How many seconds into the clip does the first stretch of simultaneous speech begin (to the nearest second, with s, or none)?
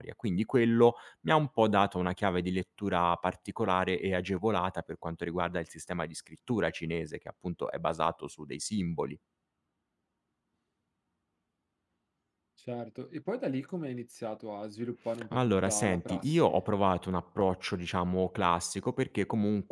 15 s